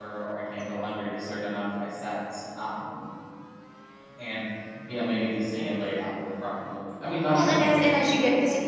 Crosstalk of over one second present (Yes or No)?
Yes